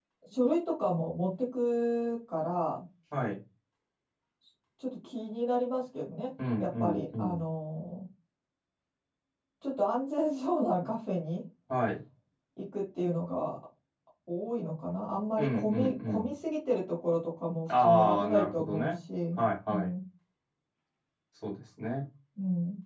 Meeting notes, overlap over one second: present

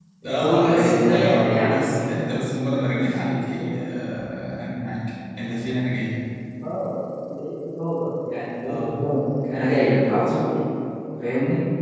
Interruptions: present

